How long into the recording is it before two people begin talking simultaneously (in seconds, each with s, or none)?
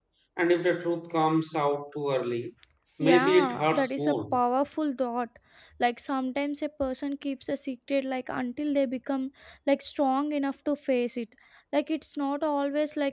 3.1 s